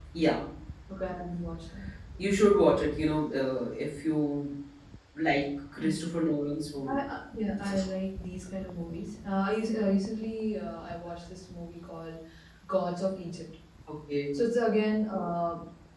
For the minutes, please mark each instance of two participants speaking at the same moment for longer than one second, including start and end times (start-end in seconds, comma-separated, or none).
none